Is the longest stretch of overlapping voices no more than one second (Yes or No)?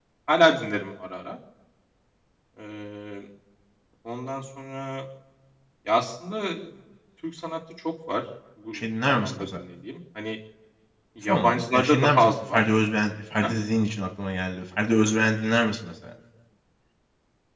No